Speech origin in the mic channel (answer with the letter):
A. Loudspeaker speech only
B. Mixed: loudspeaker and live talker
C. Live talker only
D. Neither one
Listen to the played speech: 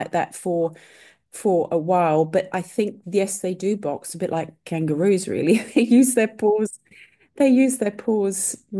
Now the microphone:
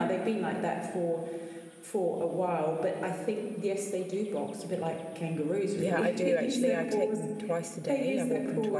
B